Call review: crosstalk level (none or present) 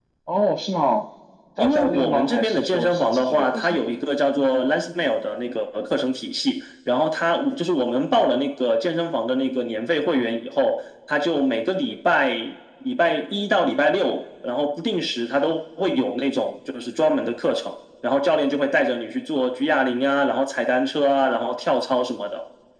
present